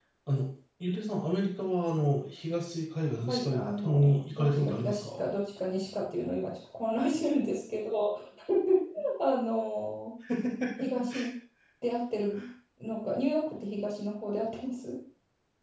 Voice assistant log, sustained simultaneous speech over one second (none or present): present